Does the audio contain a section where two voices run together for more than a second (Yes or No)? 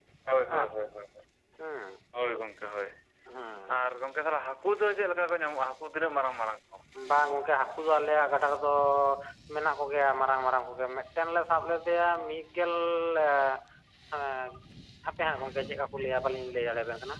No